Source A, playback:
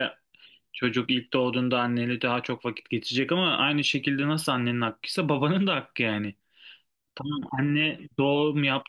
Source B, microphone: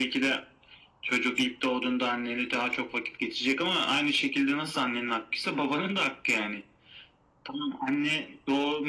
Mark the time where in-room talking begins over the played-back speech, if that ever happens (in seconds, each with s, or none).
none